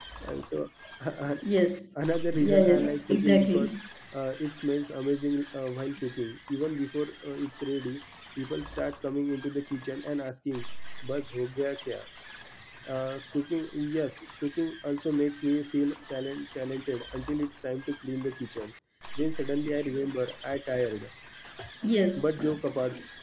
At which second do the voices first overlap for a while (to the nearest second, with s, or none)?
2 s